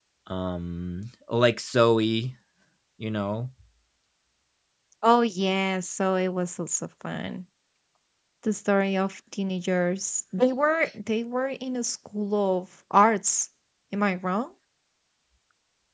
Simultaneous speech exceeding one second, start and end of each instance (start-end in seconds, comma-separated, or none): none